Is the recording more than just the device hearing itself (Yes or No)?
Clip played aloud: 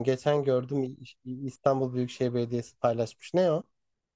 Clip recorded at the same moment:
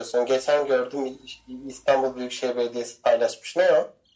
No